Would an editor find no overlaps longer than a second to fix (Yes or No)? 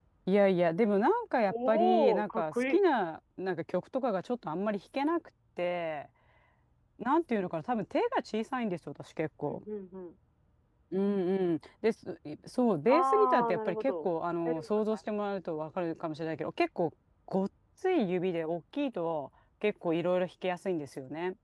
No